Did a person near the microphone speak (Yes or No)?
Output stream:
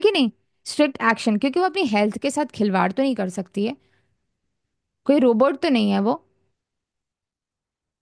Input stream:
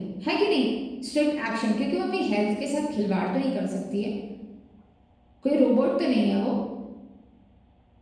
No